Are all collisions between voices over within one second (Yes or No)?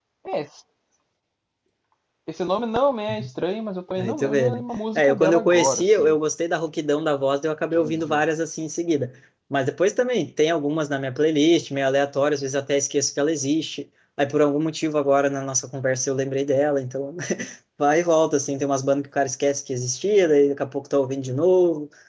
No